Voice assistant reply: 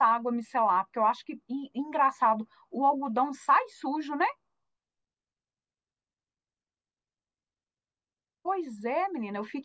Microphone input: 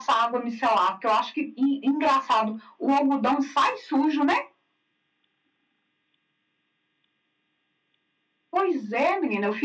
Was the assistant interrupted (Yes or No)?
No